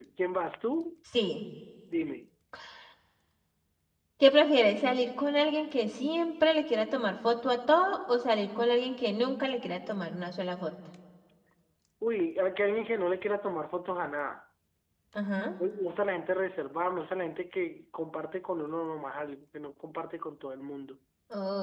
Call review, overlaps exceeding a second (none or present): none